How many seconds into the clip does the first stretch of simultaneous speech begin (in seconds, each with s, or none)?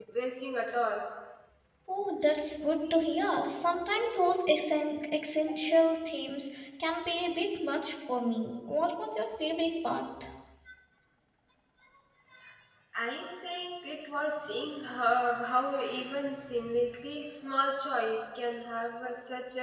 none